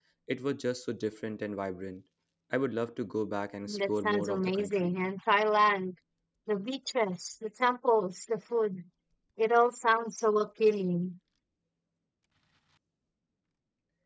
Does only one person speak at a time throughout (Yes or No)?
No